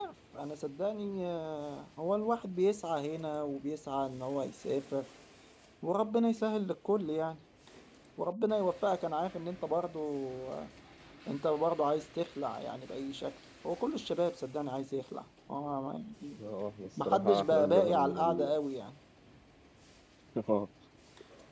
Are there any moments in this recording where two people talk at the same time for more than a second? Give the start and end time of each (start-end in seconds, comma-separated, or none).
17.1-18.6